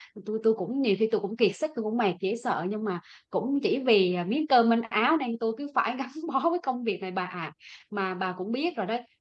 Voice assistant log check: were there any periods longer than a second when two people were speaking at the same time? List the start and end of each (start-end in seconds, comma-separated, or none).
none